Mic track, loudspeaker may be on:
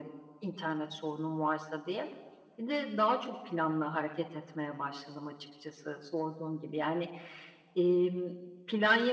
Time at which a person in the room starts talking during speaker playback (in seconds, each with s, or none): none